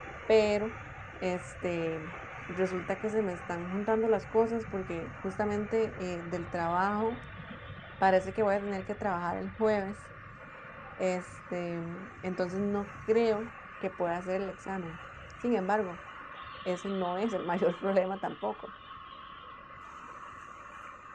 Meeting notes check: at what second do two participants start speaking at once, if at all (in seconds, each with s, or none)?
none